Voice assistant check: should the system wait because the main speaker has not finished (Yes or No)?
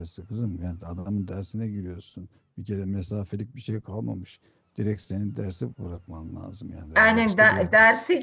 No